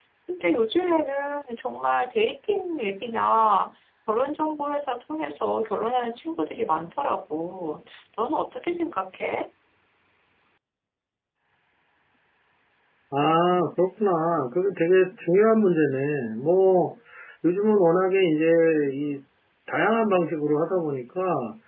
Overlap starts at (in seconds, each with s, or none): none